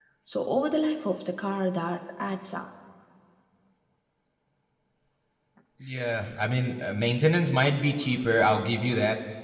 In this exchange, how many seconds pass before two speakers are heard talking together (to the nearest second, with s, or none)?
none